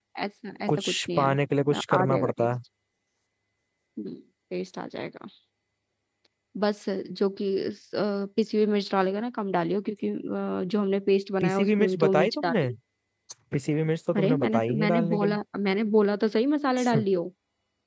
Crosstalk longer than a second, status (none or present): present